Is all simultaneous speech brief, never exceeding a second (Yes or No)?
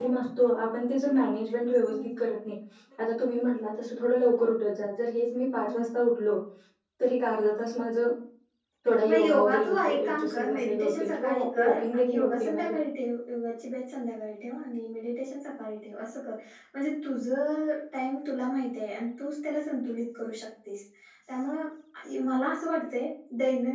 No